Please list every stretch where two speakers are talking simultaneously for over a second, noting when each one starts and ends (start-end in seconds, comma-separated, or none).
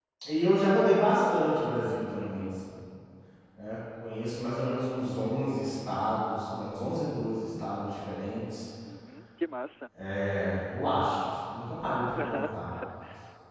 none